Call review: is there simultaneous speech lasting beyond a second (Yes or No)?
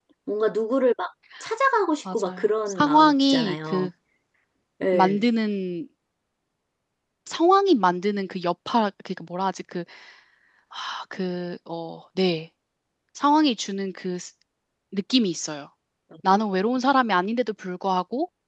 Yes